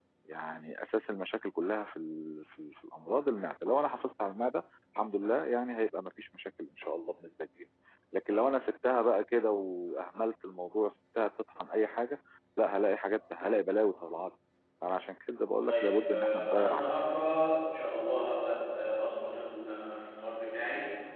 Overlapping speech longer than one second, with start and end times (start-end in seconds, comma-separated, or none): 15.7-16.9